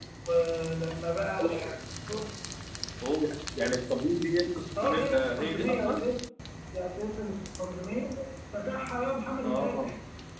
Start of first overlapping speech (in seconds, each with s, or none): 4.8 s